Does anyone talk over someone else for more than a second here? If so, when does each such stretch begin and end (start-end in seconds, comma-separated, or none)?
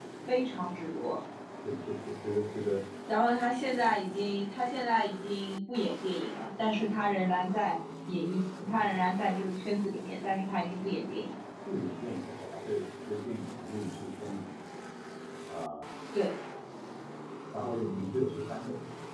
none